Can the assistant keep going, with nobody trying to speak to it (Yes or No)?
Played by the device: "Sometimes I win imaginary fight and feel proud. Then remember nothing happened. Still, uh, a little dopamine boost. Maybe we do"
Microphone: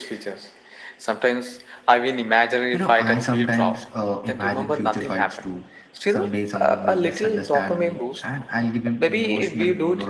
No